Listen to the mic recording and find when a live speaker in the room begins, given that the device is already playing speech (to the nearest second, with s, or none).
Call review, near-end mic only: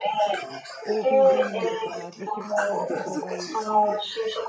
1 s